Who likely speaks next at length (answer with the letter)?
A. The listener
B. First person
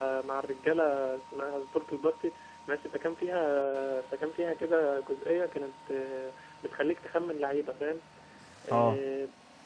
B